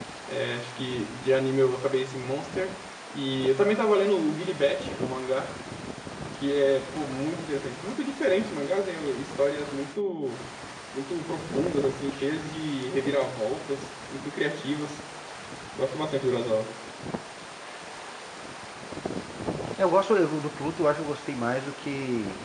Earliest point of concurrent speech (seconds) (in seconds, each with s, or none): none